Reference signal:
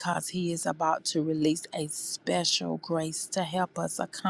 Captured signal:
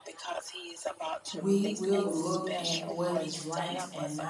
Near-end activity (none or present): present